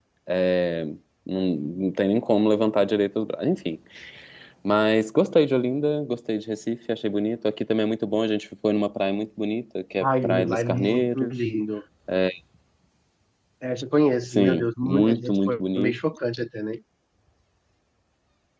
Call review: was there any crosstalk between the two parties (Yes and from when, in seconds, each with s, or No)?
Yes, from 10.0 s